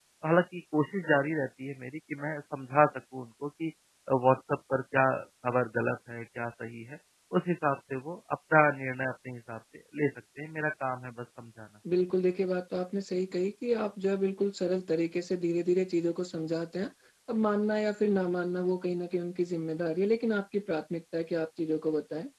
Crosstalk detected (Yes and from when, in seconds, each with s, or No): No